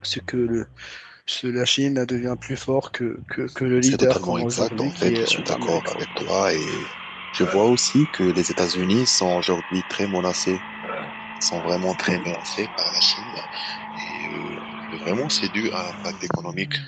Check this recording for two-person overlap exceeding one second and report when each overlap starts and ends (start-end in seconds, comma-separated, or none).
3.8-6.0